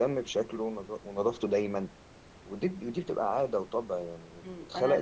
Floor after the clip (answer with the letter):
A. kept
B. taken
B